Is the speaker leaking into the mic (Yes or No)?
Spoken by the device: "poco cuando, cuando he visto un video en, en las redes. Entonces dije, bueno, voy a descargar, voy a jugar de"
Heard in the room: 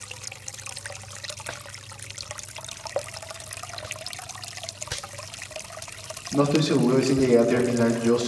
No